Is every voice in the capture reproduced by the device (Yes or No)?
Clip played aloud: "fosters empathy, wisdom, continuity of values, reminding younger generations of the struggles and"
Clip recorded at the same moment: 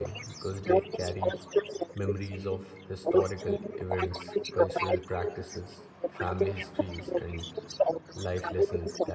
No